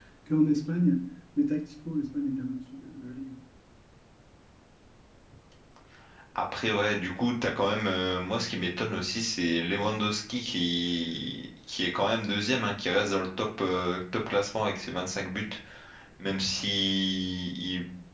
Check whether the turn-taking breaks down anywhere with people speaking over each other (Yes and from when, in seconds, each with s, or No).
No